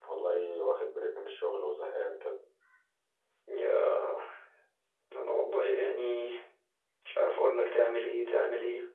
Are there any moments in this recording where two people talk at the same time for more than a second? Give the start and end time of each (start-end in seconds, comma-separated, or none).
none